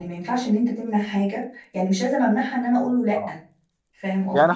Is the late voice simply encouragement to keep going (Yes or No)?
No